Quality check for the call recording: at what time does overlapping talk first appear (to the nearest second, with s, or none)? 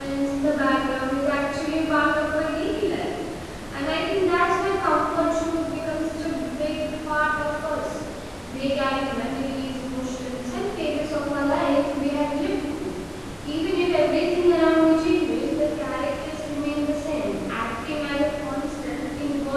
none